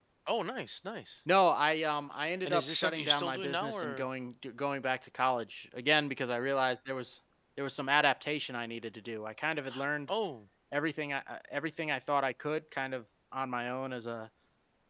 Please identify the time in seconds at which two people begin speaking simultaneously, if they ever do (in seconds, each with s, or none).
2.4 s